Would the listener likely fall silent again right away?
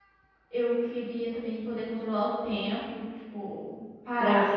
No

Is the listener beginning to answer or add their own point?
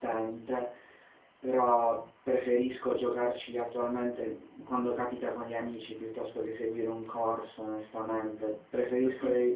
No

